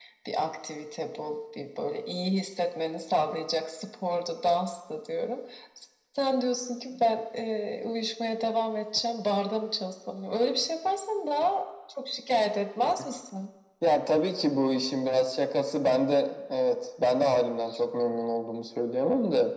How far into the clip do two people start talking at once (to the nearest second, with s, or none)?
none